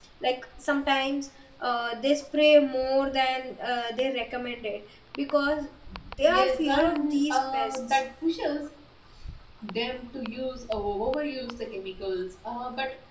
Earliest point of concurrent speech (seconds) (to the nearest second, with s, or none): 6 s